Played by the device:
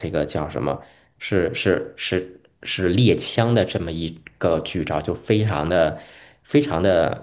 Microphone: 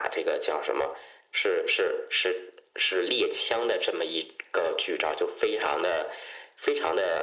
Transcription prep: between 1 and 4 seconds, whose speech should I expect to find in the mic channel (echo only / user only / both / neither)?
echo only